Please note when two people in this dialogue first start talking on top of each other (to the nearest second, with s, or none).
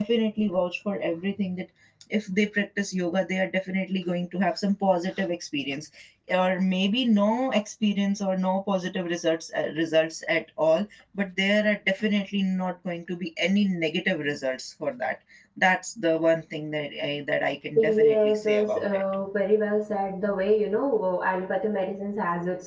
18 s